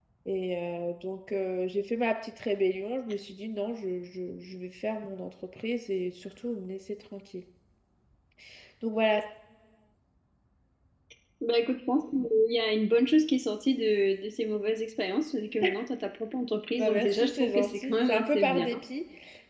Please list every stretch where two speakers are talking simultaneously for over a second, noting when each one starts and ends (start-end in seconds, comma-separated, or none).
16.8-18.7